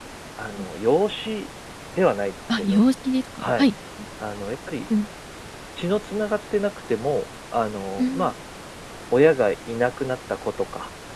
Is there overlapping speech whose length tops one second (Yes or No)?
No